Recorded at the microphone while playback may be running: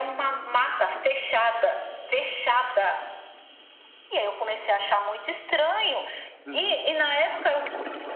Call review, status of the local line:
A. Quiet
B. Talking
B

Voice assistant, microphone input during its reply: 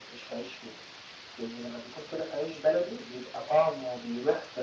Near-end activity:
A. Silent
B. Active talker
A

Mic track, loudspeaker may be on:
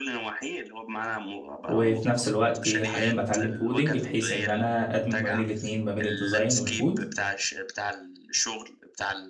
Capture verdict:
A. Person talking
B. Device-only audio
A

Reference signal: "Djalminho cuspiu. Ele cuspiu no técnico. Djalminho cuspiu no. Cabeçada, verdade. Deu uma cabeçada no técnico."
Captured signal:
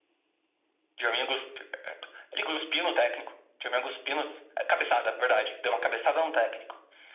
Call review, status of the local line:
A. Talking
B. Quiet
B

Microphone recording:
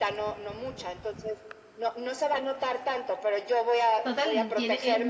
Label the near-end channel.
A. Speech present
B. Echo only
A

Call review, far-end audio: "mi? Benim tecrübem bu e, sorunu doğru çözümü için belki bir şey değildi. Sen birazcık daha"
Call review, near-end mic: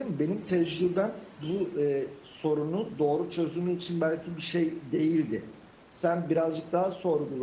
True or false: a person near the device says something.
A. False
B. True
A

